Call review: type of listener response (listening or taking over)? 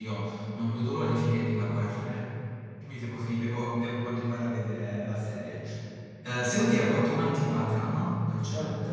taking over